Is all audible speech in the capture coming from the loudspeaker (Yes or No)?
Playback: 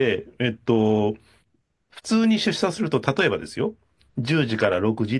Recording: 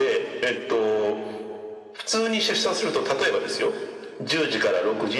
Yes